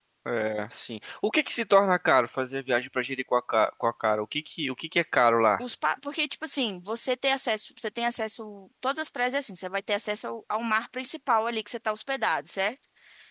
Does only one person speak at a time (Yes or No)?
Yes